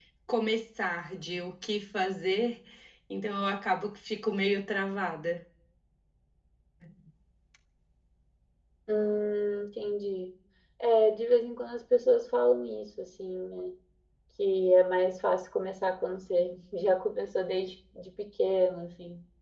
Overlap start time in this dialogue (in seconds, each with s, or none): none